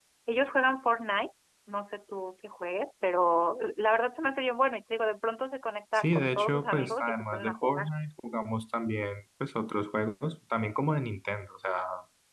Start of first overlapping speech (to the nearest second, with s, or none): 6 s